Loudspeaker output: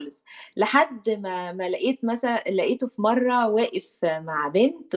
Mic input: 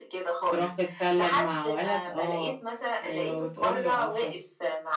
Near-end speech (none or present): present